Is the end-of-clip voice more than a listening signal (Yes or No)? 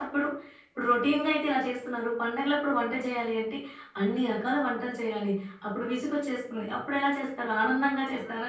Yes